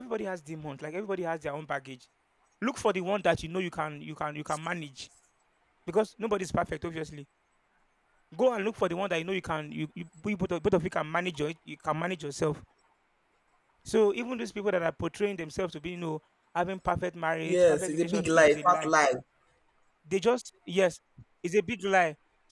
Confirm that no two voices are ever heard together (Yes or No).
No